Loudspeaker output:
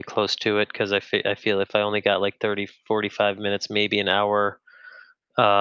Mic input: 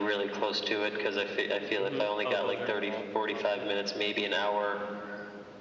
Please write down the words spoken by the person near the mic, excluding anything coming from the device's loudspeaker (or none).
Mhm. Oh, those are involved in CrossFit?